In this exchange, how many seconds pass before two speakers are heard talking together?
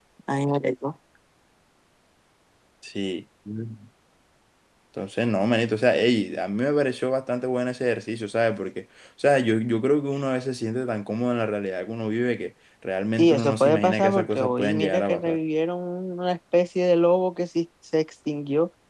13.2 s

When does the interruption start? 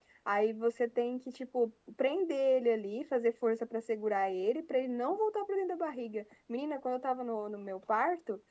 none

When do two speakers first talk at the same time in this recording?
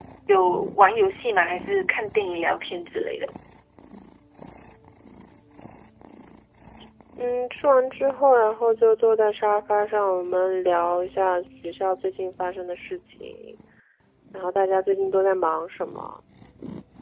none

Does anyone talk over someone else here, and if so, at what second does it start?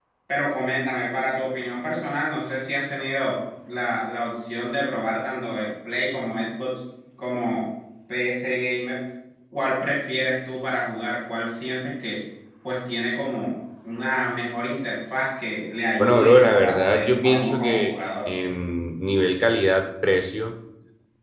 16.0 s

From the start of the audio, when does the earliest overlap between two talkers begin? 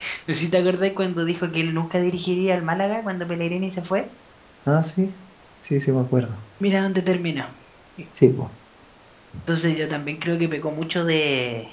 none

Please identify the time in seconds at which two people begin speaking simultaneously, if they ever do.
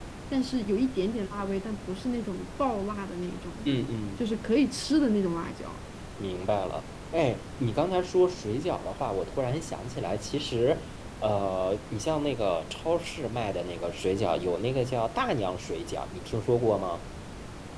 none

